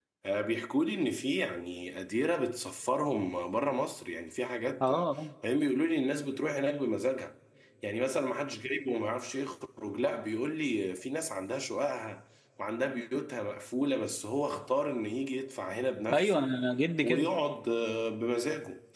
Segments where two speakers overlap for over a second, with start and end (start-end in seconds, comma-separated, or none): none